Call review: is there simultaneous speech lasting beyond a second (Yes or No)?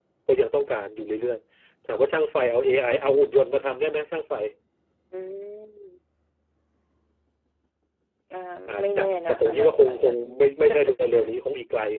Yes